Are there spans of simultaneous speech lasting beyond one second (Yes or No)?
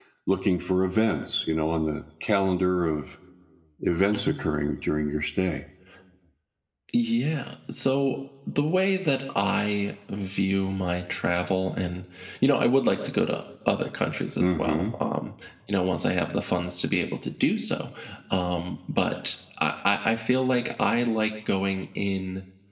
No